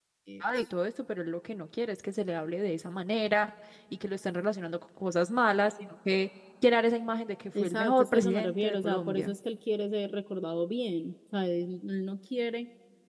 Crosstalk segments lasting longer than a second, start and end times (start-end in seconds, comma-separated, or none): 7.6-9.3